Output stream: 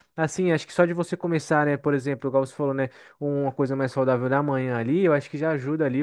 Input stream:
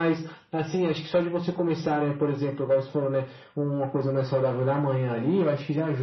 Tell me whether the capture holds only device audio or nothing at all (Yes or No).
Yes